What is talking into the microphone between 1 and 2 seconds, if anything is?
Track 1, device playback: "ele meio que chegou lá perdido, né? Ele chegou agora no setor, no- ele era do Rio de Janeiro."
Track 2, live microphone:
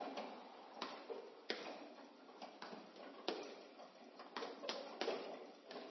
neither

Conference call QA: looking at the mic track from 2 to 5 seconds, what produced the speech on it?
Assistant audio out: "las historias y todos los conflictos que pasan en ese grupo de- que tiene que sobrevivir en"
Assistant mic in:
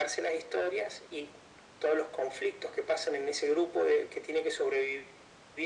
echo only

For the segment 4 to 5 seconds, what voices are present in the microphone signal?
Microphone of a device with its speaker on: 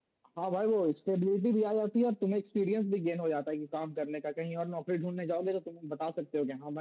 echo only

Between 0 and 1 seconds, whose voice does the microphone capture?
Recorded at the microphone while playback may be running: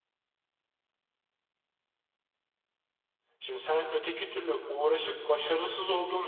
neither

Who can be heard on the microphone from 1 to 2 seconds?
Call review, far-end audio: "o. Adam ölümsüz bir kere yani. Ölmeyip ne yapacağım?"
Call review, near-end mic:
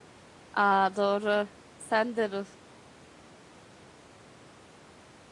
user only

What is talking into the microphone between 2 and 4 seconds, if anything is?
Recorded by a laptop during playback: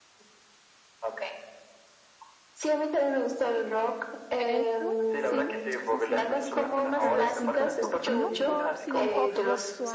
echo only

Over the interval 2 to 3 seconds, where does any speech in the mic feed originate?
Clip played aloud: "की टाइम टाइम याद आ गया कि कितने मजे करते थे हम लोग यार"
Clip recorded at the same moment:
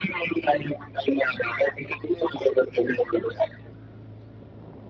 echo only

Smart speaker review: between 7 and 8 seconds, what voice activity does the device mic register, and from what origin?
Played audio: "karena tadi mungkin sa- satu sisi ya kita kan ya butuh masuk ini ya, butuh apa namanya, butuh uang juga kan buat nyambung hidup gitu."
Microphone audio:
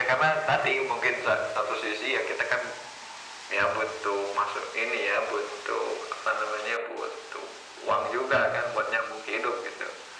echo only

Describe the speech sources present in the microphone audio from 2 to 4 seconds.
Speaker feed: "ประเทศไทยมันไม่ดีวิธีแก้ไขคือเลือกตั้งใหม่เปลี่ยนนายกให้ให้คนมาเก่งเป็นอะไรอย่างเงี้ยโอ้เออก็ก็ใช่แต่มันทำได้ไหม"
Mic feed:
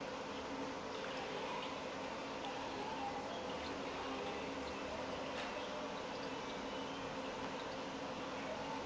neither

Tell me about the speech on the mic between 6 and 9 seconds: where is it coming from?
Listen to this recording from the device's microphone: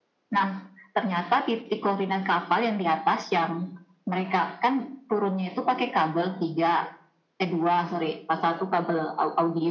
echo only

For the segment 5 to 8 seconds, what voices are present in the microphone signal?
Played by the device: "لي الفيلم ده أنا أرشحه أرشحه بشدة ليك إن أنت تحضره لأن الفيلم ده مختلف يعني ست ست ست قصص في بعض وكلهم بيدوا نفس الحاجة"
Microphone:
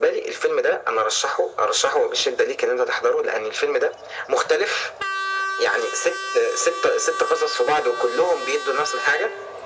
echo only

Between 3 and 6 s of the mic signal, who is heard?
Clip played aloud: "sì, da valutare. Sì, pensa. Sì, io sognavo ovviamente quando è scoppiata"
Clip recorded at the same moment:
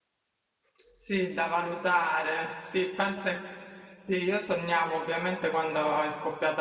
echo only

